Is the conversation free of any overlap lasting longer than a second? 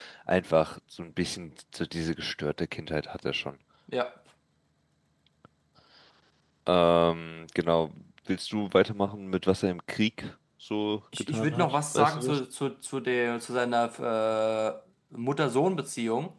No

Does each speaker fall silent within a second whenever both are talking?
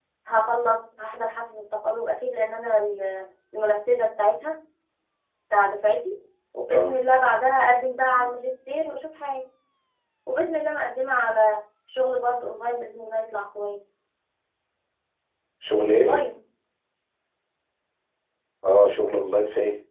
Yes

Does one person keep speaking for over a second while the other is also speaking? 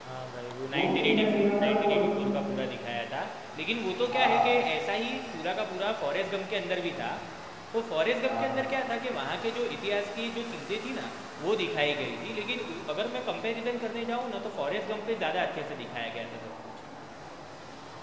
Yes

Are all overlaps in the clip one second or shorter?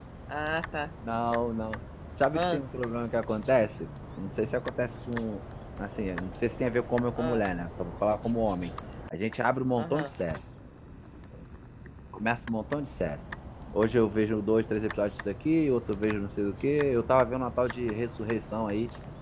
Yes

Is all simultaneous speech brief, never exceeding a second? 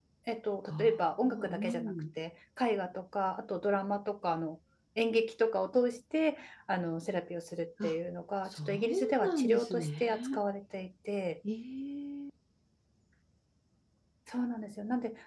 No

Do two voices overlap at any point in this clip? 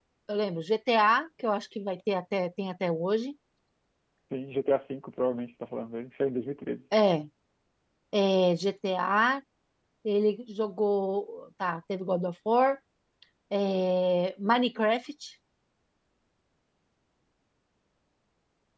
No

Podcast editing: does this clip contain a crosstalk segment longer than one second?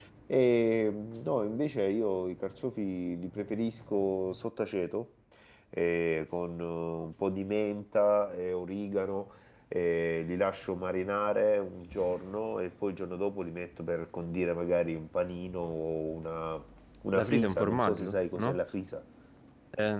Yes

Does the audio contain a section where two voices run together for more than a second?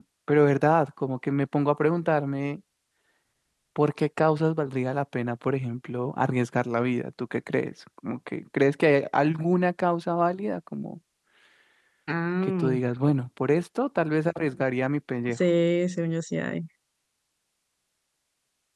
No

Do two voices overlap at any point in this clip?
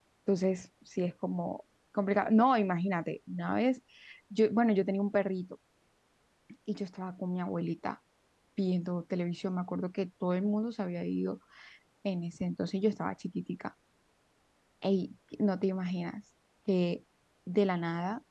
No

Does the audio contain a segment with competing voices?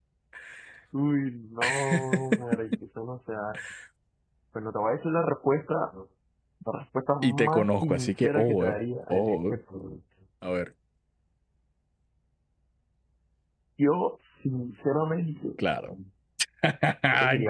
Yes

